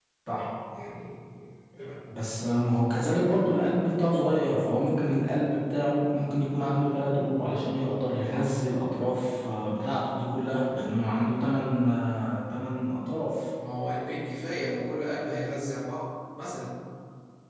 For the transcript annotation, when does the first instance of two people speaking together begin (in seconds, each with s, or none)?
none